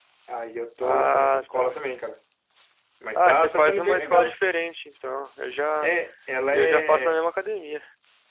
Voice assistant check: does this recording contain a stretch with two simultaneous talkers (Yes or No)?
Yes